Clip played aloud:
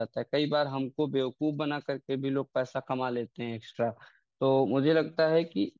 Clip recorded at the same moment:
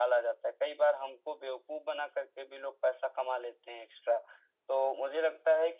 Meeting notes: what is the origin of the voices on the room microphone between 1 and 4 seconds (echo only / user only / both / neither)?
echo only